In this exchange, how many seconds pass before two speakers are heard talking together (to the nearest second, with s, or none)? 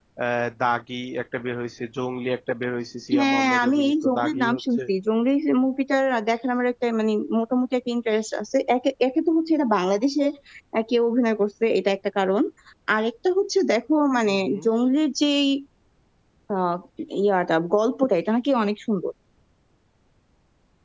3 s